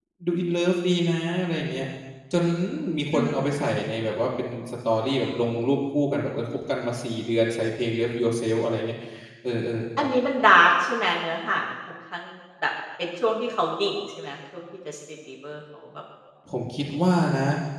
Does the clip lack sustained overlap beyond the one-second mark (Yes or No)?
Yes